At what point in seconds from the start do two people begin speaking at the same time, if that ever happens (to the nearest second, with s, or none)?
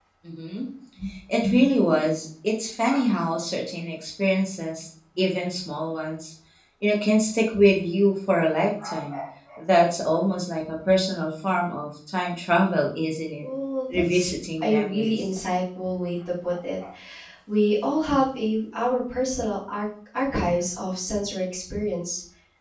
14 s